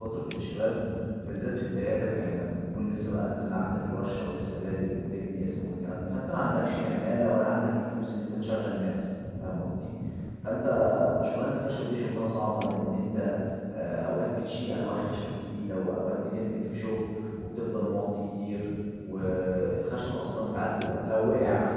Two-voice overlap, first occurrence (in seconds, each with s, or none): none